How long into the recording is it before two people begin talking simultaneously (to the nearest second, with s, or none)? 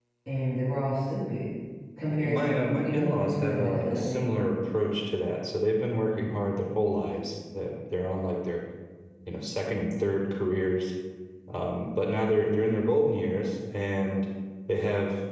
2 s